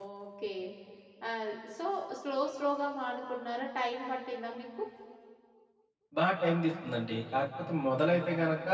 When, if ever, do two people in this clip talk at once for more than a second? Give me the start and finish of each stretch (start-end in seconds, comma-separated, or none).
none